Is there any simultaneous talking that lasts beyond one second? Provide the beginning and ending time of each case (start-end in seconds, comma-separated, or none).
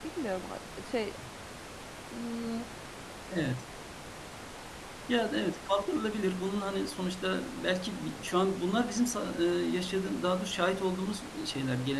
none